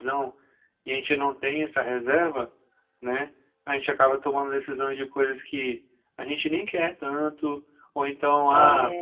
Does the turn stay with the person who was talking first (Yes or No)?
Yes